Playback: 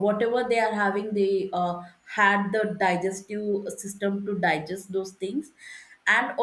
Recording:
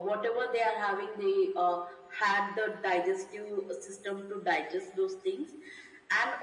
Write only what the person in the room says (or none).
none